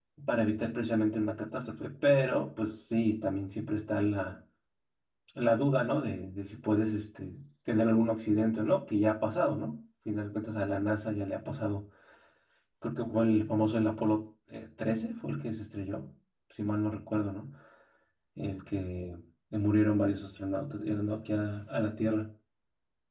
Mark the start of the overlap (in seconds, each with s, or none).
none